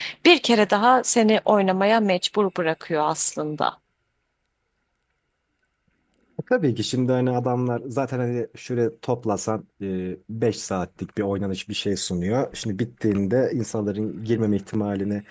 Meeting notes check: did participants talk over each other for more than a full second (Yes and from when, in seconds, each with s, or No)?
No